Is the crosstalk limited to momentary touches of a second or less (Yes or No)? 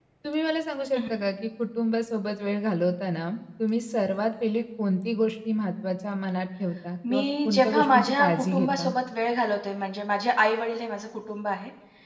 No